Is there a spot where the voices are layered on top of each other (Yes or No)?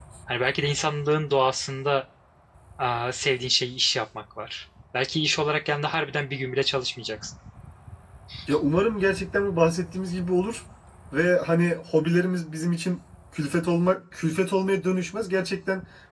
No